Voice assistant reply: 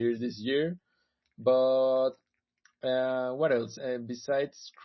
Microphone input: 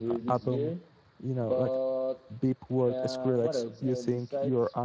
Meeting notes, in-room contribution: present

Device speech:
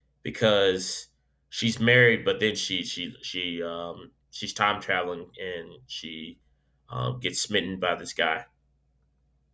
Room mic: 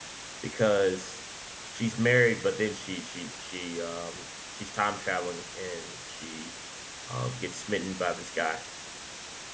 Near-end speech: none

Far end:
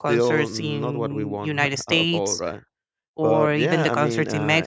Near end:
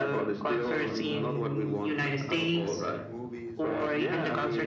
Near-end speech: present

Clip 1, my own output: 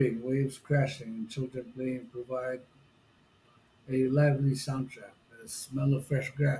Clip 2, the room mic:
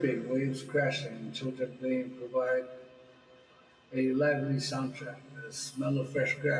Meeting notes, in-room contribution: none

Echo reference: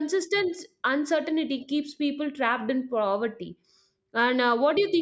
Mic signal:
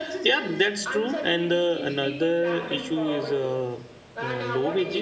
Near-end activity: present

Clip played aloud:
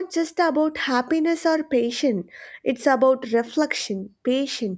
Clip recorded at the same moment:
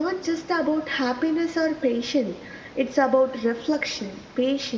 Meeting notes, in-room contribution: none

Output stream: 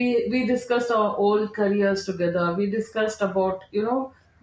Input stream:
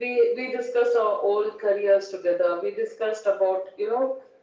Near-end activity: none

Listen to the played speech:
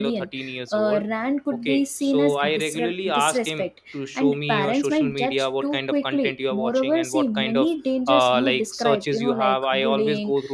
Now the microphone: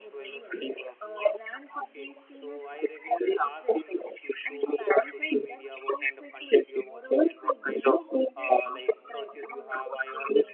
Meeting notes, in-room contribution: none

